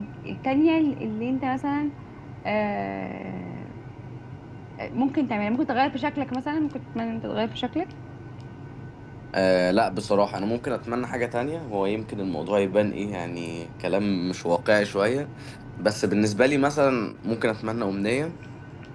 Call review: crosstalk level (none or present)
none